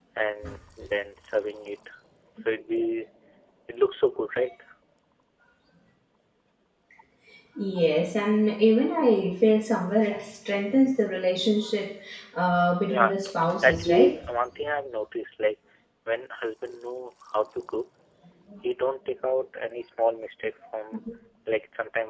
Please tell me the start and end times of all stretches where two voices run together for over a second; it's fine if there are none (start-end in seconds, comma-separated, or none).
none